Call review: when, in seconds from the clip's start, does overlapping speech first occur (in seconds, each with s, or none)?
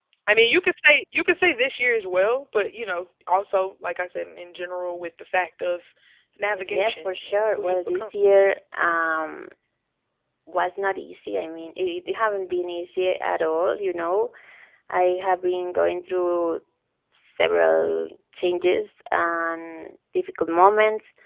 6.5 s